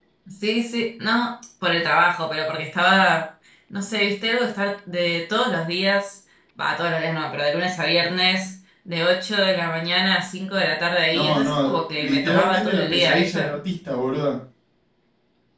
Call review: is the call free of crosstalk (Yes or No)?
No